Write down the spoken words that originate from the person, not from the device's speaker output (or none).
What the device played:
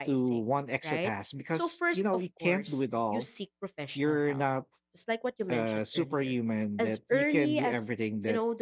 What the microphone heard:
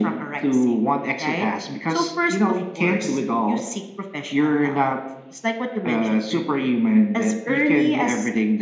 none